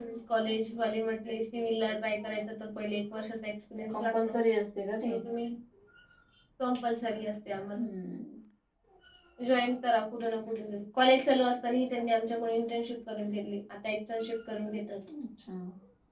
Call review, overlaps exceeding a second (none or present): none